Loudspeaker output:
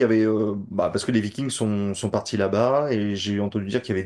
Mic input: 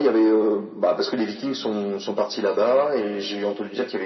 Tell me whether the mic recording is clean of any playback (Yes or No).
No